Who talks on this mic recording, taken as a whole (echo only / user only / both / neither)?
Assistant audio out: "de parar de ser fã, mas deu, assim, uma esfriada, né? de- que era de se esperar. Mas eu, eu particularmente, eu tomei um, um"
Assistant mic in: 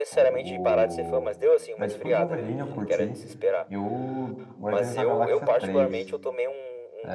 both